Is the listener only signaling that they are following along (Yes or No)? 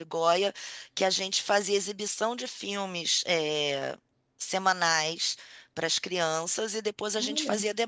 Yes